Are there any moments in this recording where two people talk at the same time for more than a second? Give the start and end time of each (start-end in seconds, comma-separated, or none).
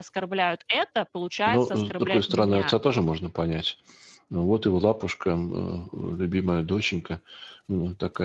1.5-2.8